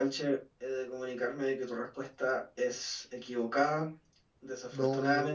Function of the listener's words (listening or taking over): listening